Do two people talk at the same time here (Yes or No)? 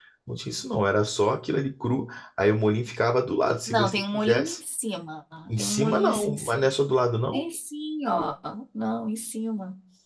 Yes